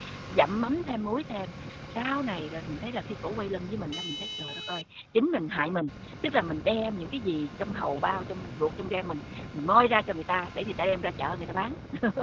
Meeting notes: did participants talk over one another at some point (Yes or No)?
No